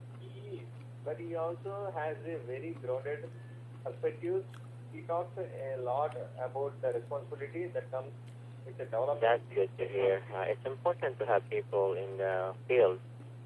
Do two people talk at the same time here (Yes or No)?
Yes